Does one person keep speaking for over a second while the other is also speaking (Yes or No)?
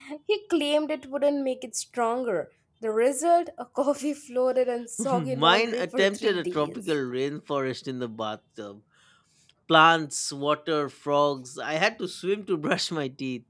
Yes